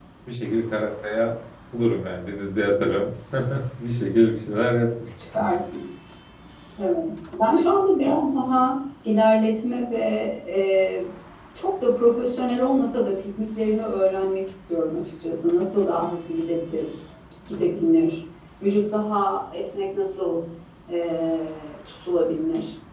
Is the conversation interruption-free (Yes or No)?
Yes